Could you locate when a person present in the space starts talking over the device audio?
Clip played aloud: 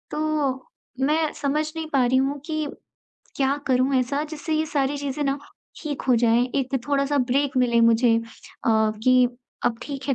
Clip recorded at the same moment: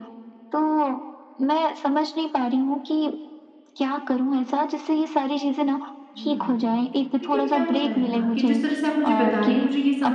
6.2 s

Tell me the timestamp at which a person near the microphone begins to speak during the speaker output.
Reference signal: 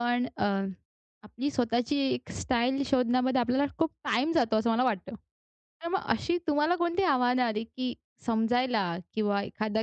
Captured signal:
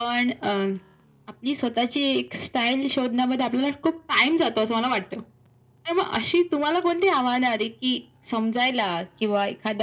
none

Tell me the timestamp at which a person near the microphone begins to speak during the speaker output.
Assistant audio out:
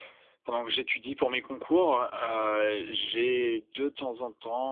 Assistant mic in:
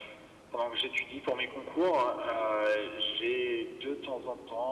none

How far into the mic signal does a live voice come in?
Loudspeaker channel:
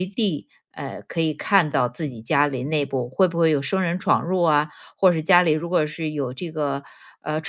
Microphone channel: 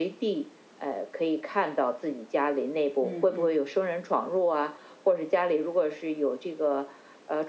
3.0 s

